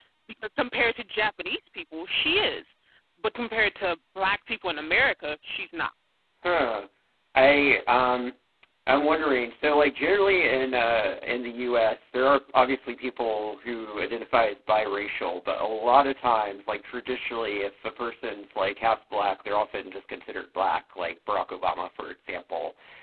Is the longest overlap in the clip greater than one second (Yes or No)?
No